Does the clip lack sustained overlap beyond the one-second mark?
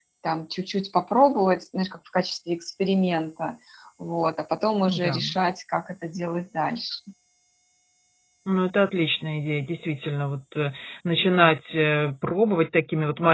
Yes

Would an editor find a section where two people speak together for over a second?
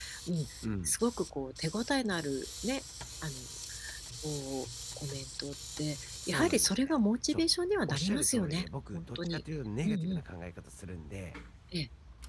Yes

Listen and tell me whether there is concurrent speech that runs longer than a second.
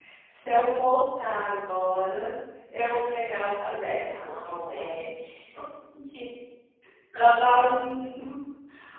Yes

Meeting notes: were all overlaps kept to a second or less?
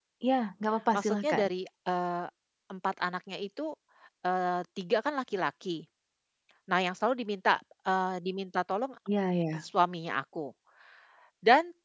Yes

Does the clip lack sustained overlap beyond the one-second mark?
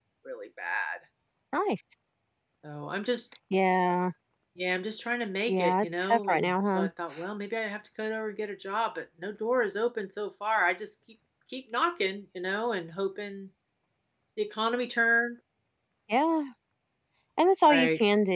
No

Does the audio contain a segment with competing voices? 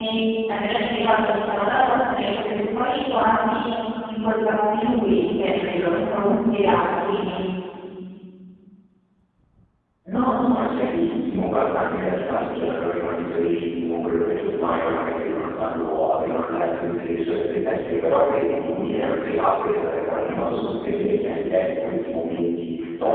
No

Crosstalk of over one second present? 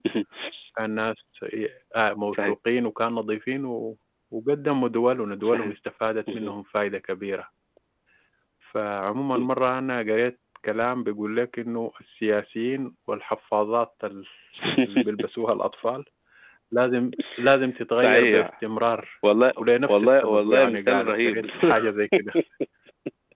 Yes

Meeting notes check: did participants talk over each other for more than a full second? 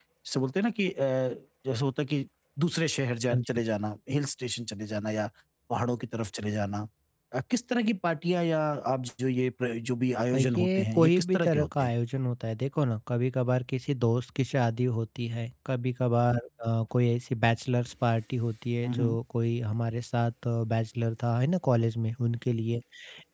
Yes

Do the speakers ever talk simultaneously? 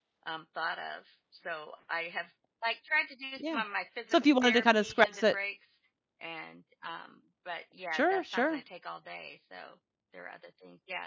Yes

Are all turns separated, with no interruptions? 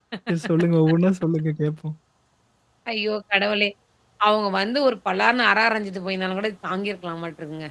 Yes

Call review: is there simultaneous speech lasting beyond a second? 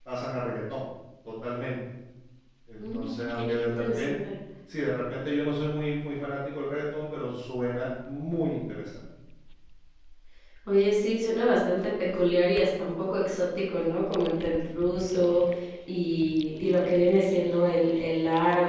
Yes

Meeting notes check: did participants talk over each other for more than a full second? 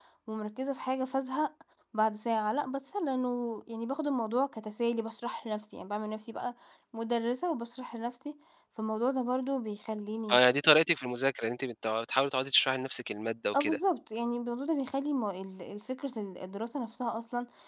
No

